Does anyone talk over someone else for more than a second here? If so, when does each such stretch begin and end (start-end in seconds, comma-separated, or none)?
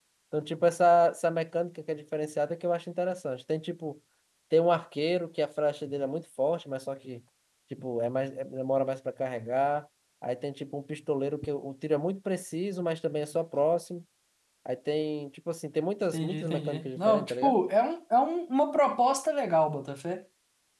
16.1-17.6